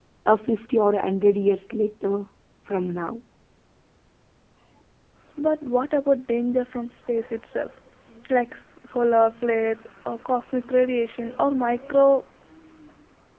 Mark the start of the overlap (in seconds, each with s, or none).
none